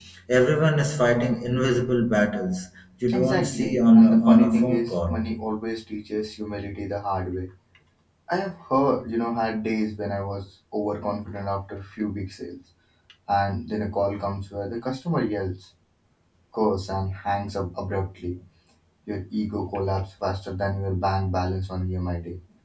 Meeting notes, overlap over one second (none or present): present